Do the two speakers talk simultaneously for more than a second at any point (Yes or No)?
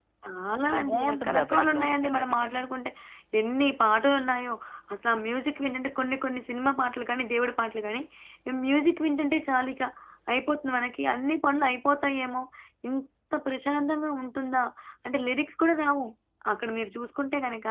Yes